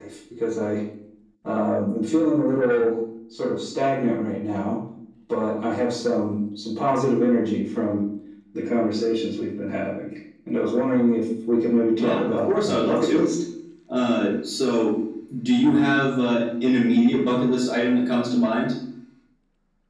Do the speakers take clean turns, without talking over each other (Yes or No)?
No